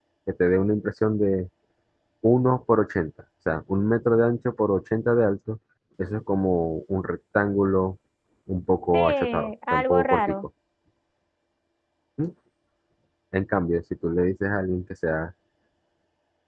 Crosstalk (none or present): present